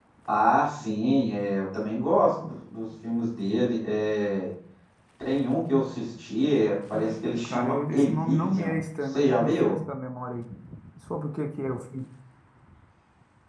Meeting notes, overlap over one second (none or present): present